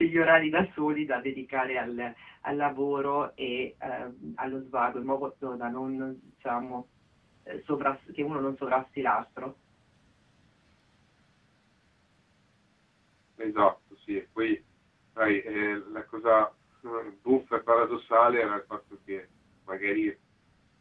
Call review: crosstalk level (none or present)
none